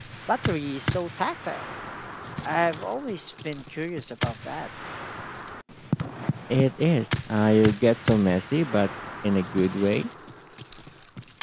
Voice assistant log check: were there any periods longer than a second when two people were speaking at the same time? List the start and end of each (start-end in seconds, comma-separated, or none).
none